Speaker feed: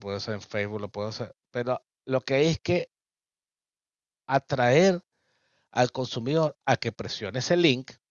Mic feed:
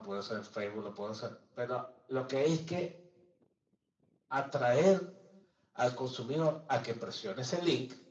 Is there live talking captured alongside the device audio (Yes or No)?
No